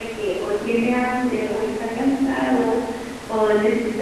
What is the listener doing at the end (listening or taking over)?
listening